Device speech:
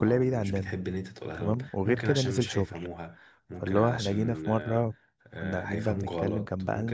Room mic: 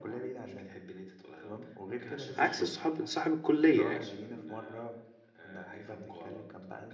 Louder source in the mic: user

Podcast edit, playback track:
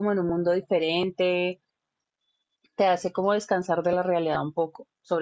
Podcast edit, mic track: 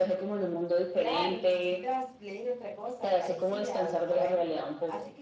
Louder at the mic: echo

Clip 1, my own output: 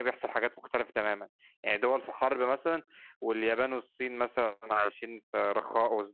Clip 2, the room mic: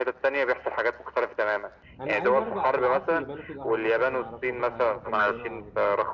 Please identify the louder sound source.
echo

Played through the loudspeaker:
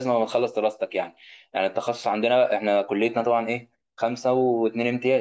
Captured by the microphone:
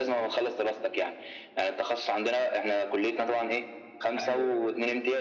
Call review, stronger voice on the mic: echo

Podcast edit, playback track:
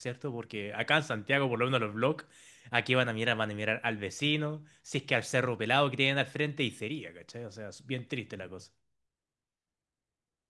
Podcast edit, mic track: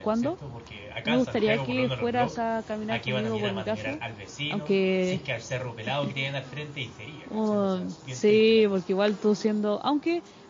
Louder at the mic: user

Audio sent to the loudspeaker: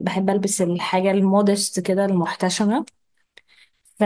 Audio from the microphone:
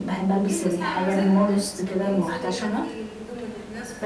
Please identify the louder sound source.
echo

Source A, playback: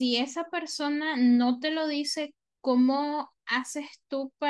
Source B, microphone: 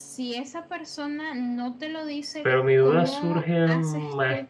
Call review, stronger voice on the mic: user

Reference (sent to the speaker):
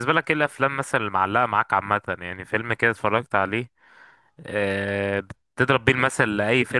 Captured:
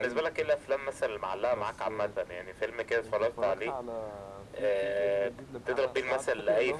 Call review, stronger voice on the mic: echo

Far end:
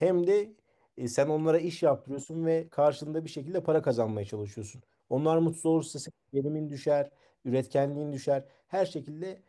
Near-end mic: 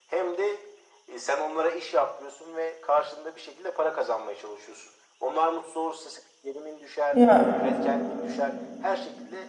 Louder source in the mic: user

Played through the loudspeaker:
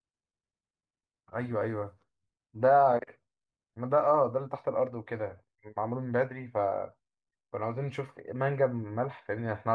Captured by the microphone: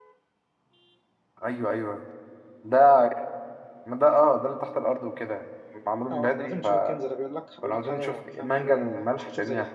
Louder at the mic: echo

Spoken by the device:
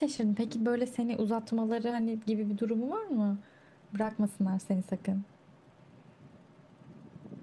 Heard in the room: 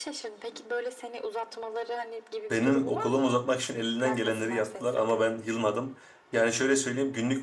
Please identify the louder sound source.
user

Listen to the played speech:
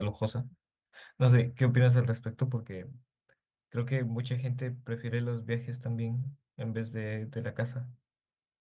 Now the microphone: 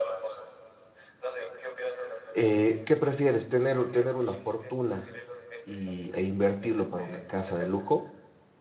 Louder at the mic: user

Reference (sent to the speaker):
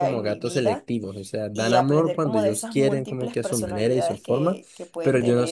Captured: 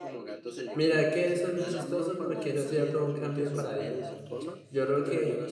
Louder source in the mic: user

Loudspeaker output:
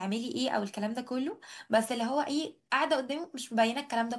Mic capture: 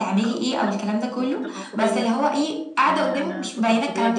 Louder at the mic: echo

